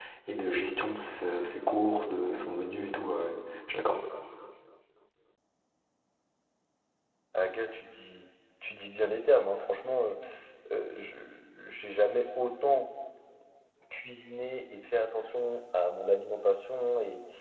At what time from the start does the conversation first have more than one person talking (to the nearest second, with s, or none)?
none